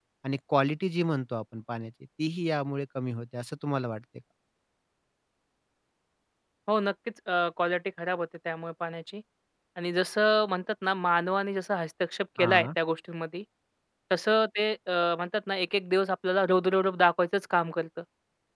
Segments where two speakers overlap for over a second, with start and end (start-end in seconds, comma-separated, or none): none